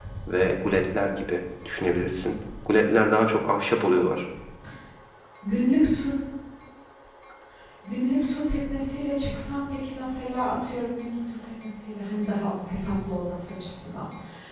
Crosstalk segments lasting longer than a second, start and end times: none

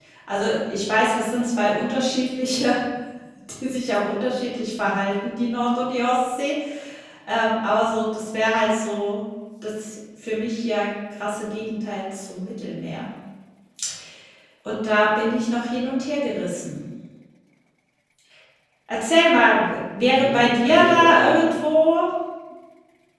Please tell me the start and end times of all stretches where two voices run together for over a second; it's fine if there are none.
20.1-21.6

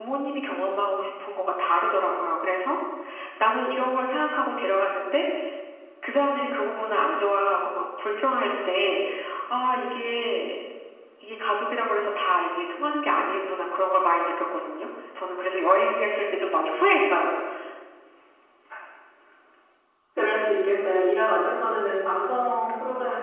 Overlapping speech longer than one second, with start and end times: none

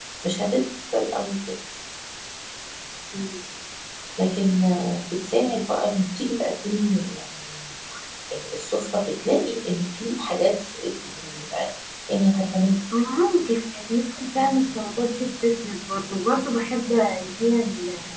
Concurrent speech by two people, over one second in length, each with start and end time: none

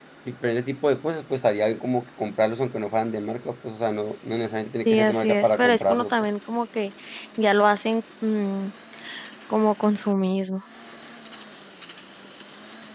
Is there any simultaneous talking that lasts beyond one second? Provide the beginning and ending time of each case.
4.8-6.1

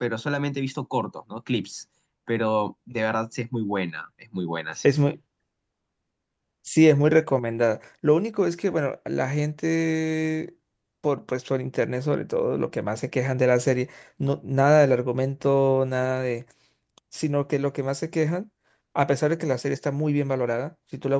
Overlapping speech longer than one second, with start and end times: none

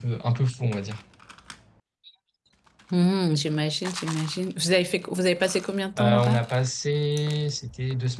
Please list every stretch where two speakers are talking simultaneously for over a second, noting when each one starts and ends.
none

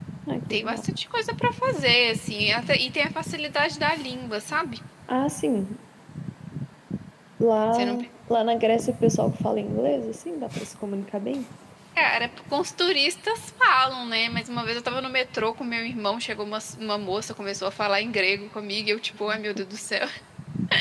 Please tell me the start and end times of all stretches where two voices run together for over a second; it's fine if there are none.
none

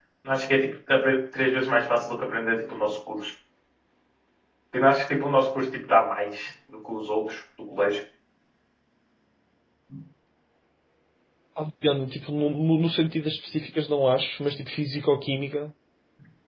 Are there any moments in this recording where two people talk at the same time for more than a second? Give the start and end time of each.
none

